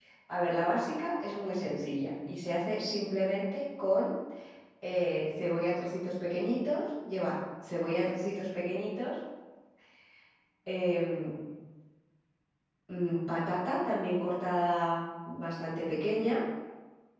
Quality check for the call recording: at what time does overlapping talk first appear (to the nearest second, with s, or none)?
none